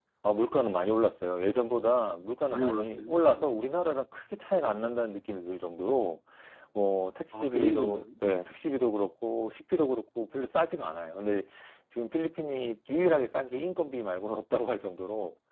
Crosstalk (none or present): present